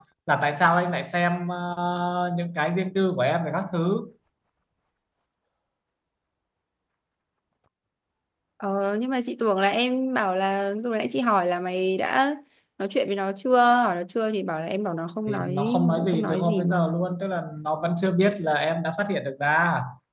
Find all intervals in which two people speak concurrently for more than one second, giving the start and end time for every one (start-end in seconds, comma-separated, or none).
15.3-17.0